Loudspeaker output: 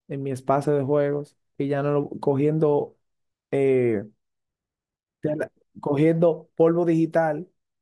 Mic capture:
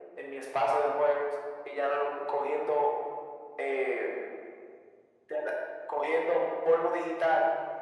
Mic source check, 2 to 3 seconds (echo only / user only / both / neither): echo only